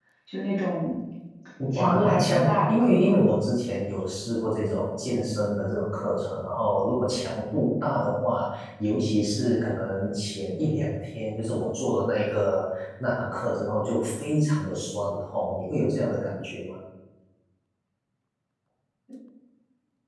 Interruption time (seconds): 2 s

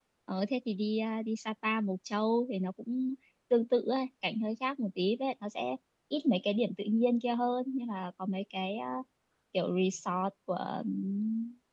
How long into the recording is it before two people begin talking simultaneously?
none

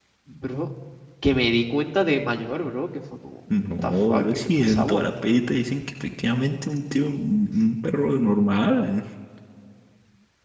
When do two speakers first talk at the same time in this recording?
4 s

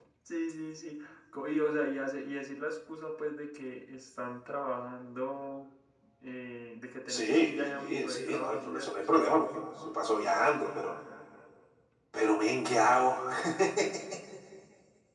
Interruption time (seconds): 7 s

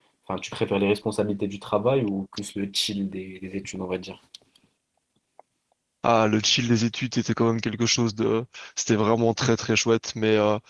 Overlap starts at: none

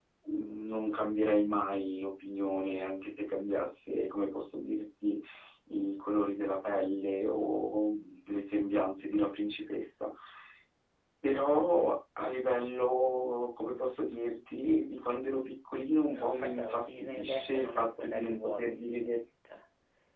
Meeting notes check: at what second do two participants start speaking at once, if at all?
16 s

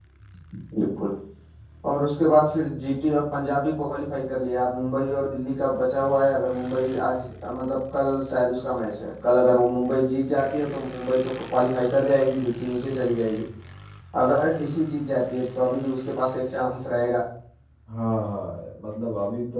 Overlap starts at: none

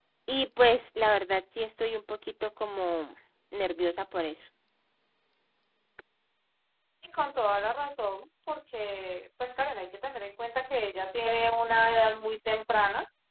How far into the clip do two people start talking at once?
none

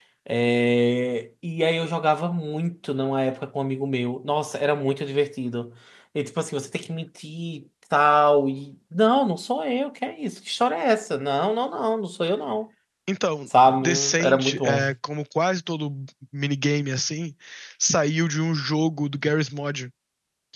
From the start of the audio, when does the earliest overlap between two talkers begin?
14 s

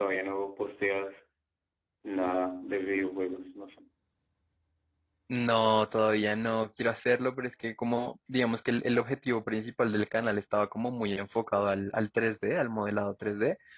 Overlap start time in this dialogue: none

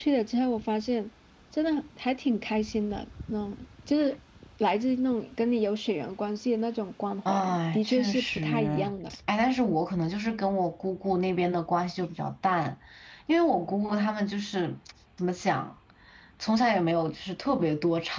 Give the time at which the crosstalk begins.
7 s

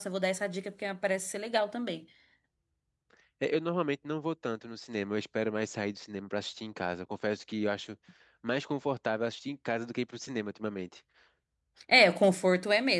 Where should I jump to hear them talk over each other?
none

